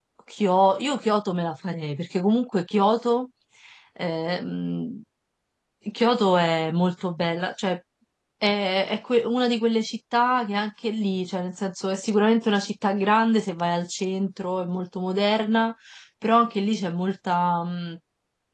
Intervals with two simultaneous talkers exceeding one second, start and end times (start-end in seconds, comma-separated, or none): none